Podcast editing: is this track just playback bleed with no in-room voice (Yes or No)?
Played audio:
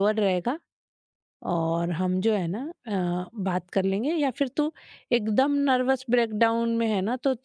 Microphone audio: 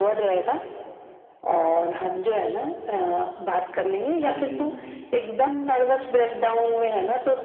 No